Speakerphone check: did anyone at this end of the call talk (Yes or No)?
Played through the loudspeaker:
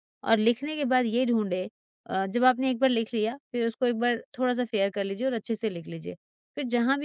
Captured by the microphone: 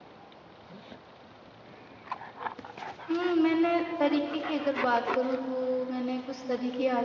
Yes